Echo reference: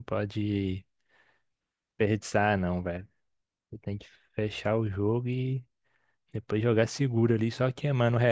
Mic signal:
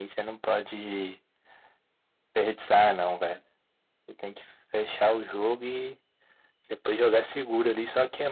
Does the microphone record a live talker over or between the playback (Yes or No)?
No